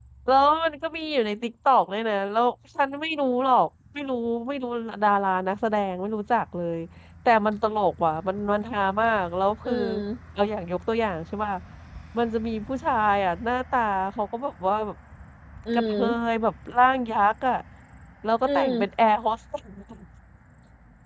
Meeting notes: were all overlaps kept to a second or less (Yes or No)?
Yes